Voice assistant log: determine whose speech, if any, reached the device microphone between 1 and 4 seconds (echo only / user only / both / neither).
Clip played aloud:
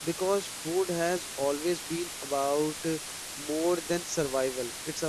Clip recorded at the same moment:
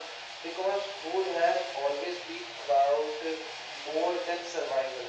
echo only